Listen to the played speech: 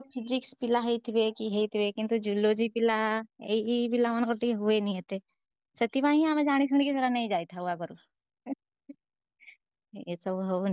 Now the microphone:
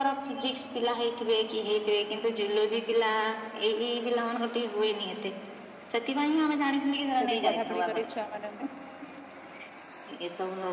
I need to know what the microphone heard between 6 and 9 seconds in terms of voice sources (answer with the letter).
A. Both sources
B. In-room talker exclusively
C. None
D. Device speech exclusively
A